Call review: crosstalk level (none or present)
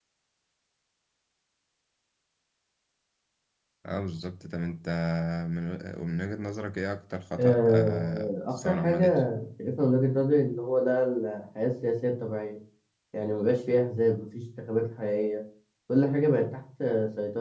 present